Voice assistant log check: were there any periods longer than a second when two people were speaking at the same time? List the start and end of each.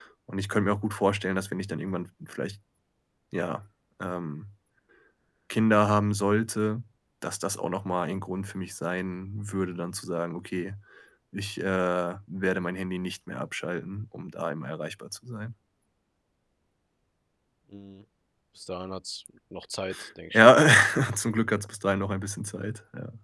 none

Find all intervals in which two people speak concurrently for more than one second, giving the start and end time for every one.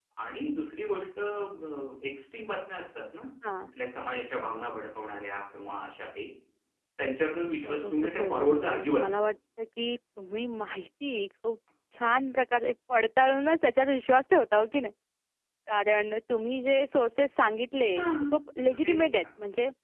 7.6-9.1

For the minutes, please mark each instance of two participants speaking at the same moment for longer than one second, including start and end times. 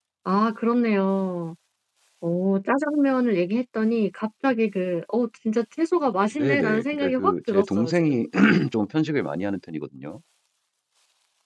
6.3-8.2

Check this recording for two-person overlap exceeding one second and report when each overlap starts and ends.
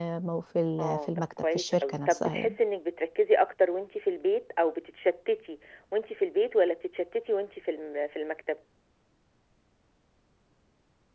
0.8-2.5

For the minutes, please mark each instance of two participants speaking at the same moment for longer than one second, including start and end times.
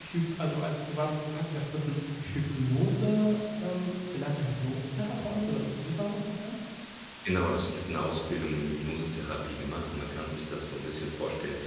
none

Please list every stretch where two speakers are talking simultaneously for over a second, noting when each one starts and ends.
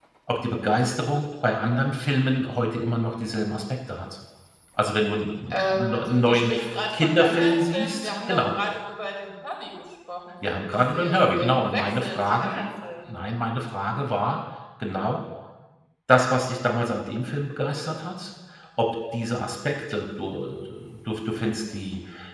5.5-8.5, 10.7-12.5

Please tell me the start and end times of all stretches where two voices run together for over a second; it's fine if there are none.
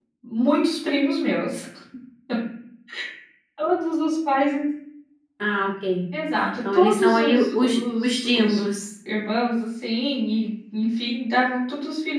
6.6-8.6

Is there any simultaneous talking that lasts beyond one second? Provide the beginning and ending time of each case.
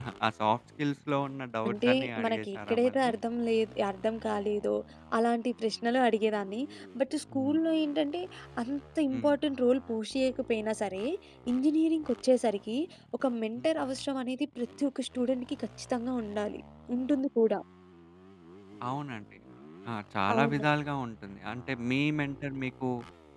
1.7-3.1

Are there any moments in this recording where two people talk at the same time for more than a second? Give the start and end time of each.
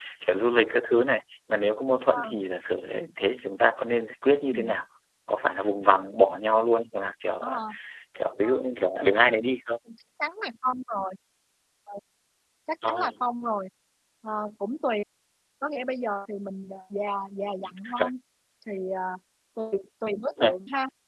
none

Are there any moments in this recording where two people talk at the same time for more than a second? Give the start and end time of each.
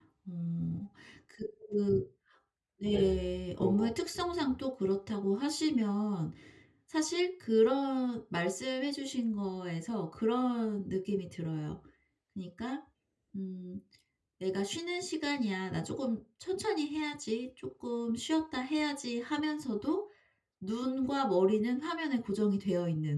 2.8-4.6

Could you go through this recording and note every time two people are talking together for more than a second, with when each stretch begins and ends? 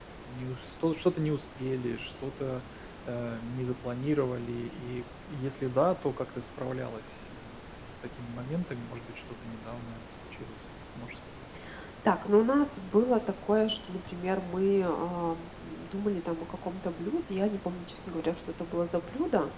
none

